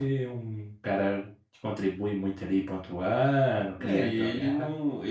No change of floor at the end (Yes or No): No